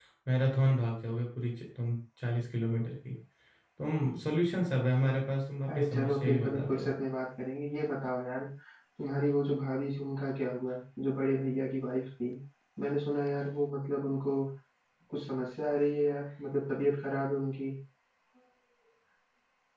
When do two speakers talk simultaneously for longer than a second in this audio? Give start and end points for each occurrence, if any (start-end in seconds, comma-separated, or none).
5.7-6.9